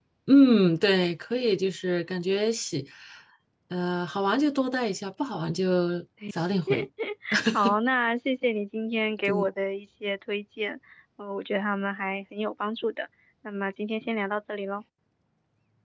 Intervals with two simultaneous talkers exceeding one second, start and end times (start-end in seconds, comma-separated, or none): none